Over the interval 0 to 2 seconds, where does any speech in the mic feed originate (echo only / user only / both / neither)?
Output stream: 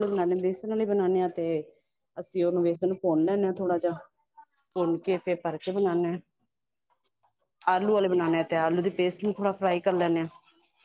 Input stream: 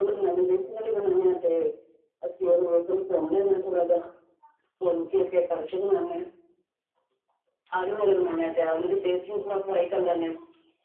echo only